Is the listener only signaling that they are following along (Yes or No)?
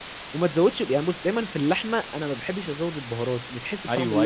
No